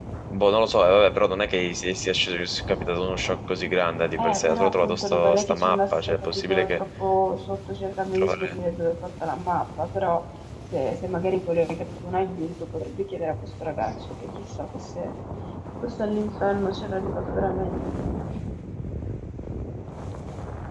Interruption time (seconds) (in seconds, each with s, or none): 4.2 s